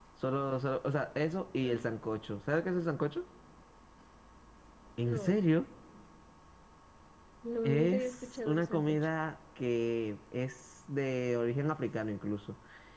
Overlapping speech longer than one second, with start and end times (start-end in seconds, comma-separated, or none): 7.6-9.1